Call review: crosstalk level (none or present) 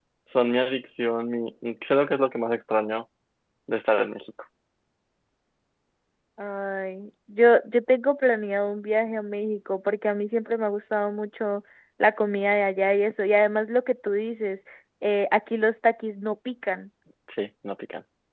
none